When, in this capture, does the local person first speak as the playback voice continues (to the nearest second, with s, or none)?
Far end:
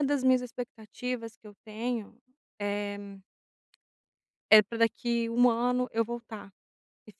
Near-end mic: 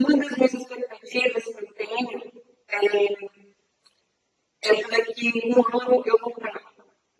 none